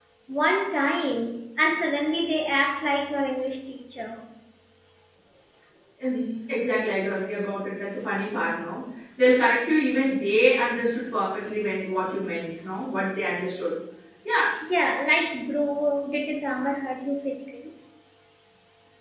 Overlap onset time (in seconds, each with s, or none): none